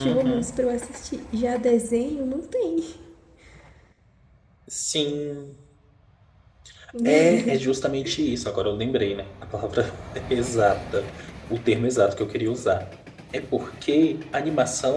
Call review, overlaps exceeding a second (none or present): none